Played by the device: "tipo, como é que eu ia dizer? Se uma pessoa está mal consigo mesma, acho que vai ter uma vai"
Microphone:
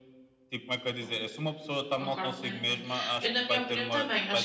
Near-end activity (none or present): present